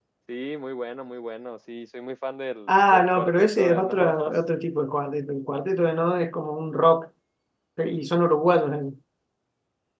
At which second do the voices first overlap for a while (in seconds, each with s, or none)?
2.7 s